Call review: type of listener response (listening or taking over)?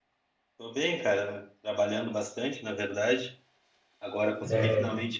listening